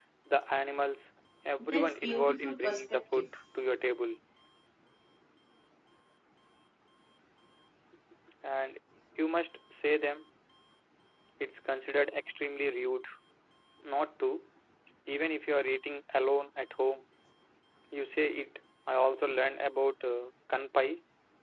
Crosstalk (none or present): present